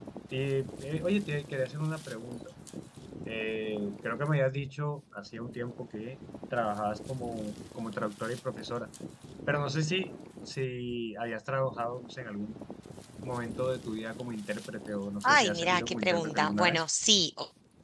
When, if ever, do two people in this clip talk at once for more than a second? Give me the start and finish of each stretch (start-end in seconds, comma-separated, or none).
15.2-16.9